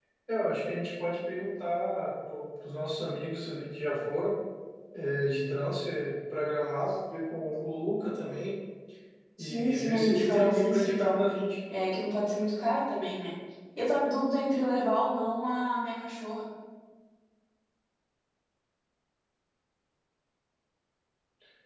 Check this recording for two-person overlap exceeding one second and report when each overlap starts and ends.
9.4-11.2

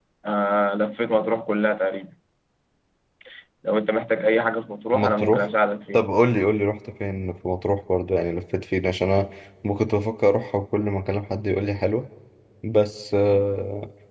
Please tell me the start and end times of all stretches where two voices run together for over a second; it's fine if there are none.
none

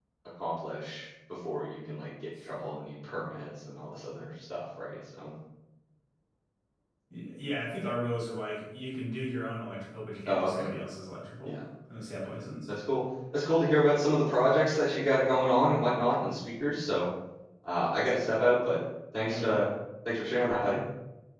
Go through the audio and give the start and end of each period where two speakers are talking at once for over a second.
none

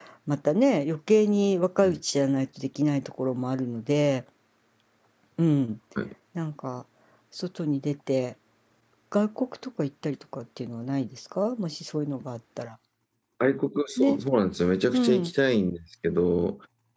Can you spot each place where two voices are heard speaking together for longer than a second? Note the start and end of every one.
none

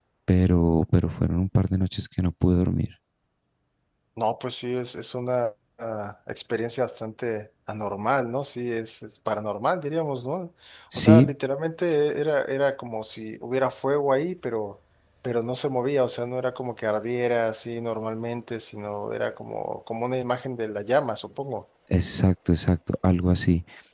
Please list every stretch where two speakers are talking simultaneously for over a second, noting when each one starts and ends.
none

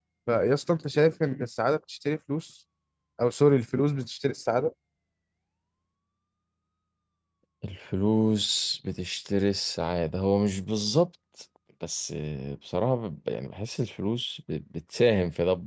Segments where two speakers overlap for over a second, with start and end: none

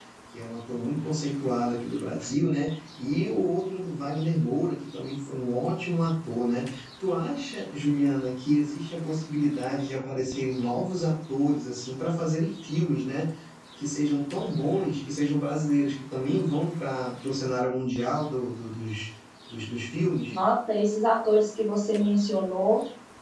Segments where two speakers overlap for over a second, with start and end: none

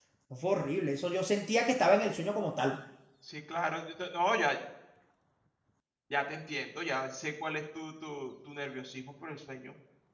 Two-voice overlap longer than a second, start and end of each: none

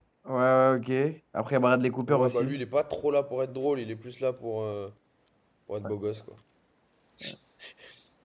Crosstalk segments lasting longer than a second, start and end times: none

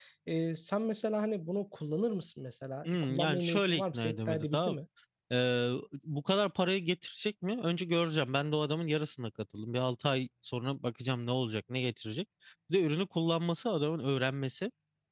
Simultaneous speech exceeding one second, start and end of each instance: 2.9-4.7

